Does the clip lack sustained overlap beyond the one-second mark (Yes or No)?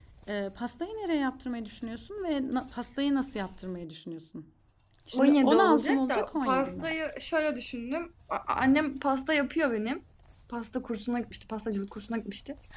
No